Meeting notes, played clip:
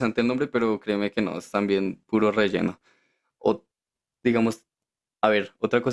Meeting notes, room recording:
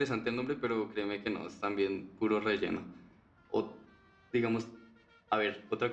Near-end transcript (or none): none